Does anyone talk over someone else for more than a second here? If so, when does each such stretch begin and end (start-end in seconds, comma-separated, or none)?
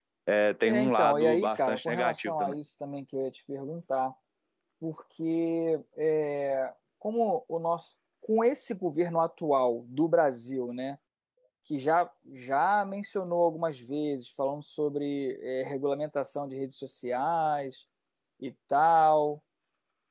0.6-2.6